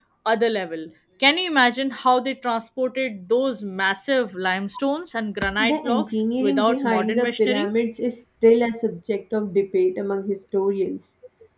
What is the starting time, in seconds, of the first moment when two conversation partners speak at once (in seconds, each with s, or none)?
5.4 s